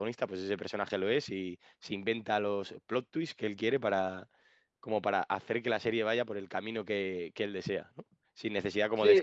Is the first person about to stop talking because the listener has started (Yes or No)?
No